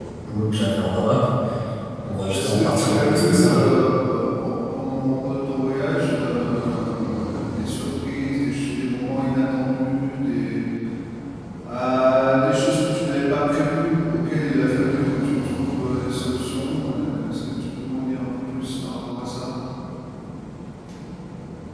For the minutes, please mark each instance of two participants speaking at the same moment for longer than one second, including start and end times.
2.3-3.6

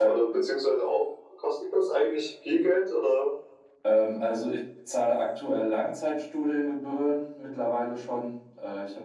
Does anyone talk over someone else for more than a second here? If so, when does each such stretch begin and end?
none

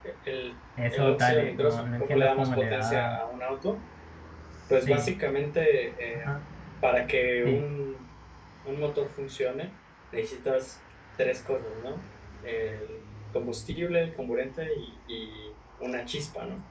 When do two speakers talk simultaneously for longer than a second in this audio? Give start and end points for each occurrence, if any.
0.9-3.2

